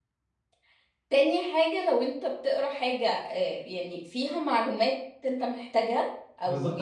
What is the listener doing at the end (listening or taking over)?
taking over